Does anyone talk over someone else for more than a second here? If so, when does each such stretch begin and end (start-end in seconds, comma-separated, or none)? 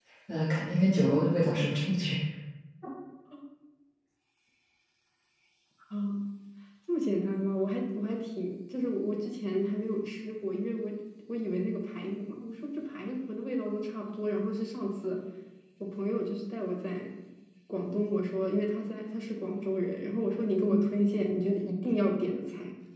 none